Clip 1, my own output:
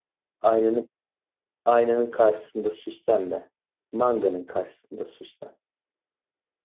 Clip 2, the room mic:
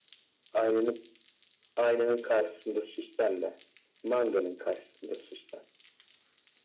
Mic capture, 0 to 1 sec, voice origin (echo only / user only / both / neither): echo only